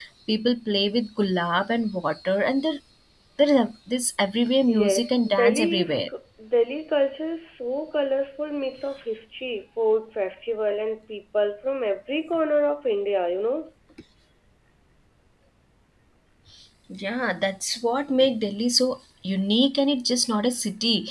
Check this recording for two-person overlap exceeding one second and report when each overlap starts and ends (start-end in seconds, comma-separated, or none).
4.8-6.0